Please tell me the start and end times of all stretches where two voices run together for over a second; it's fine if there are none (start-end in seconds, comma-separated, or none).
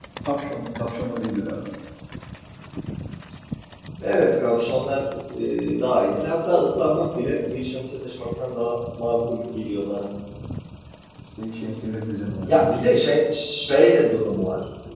none